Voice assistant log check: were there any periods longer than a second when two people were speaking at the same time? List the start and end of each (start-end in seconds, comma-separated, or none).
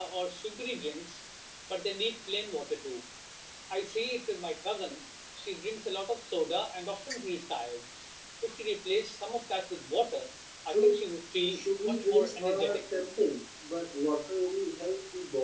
11.5-12.8